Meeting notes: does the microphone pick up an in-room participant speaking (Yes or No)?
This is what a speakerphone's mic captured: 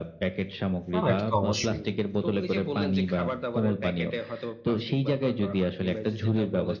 Yes